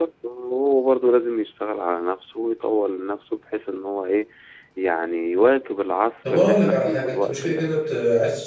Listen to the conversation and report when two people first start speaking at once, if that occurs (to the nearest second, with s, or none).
6 s